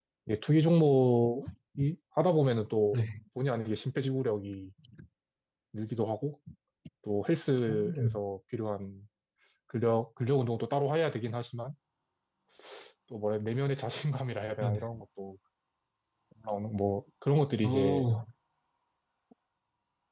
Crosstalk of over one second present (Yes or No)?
No